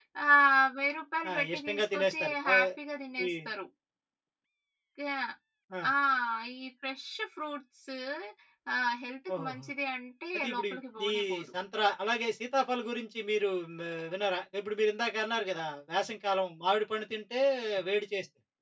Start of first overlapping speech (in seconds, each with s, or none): 1.3 s